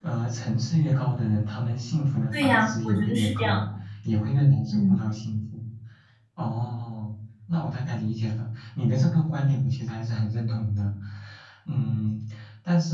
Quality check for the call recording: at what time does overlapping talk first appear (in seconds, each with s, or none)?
2.3 s